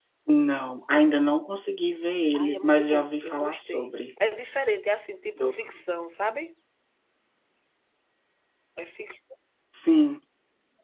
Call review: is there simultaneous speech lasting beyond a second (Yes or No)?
Yes